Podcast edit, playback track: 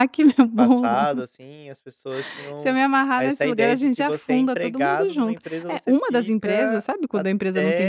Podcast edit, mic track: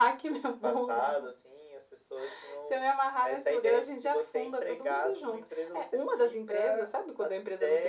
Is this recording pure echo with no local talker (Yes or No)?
Yes